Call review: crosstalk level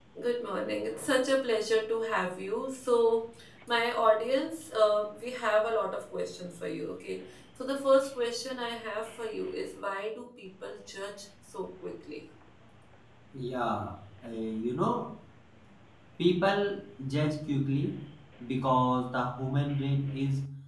none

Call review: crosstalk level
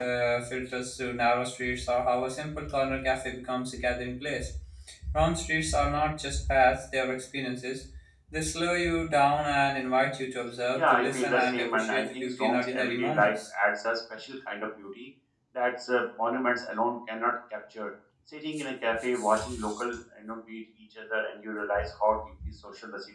present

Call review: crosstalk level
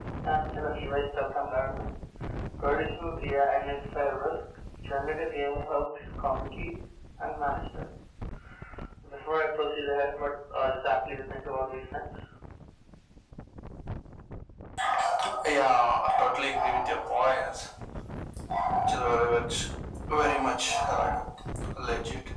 none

